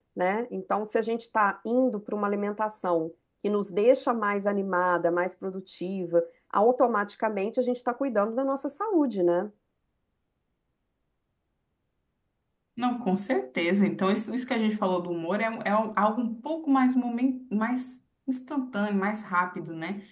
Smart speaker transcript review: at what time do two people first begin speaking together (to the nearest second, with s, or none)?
none